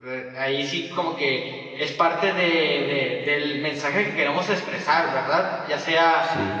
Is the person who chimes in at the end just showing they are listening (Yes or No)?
Yes